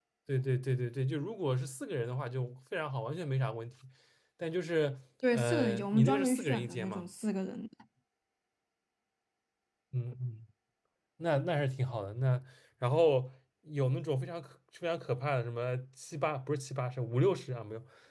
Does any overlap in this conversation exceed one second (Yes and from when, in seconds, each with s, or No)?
Yes, from 5.2 s